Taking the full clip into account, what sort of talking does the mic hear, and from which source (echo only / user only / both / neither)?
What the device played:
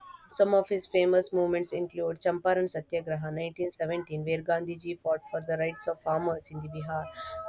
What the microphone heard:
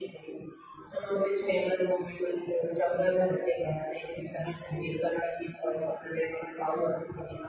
echo only